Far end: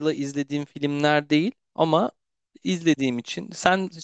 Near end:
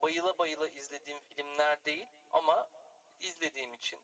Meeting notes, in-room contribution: none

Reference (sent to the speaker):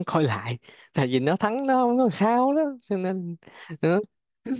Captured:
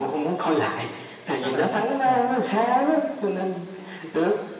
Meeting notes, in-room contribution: present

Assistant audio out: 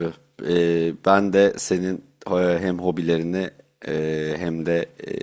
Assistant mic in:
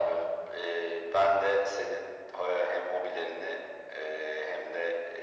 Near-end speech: none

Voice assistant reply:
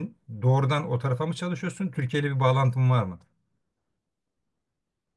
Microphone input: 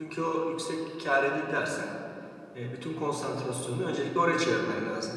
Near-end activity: present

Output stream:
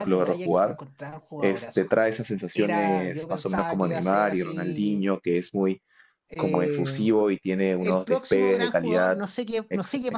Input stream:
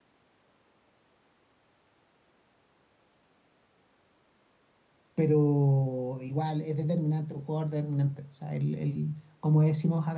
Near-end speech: present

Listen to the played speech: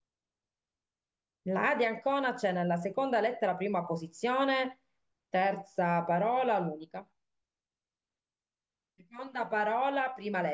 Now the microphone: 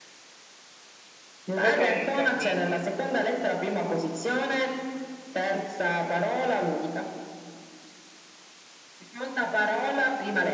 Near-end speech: present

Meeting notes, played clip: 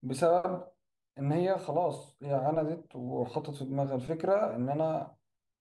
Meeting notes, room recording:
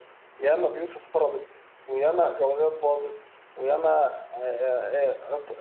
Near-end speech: present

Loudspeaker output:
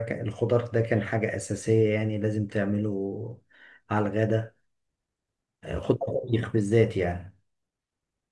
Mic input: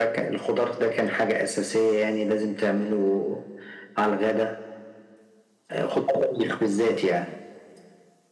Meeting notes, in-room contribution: none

